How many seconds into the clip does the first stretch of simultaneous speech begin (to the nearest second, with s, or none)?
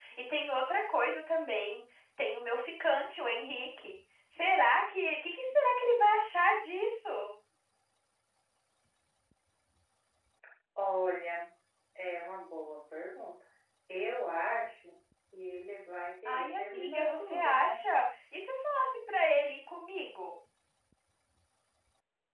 16 s